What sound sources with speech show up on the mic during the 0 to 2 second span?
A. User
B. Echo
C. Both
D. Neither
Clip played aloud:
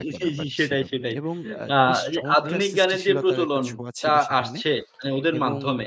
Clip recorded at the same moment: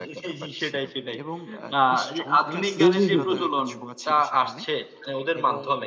B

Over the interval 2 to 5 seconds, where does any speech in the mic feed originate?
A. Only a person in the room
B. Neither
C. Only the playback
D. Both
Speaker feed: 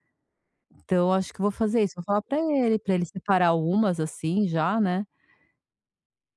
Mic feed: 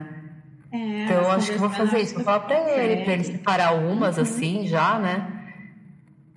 D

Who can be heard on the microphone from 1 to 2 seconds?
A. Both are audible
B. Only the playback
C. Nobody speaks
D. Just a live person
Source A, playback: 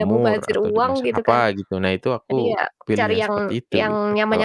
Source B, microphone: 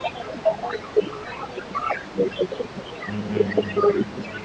B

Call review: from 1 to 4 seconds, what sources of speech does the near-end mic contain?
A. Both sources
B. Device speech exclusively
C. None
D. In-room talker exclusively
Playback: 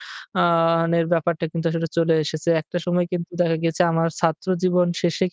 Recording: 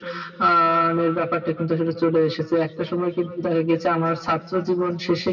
B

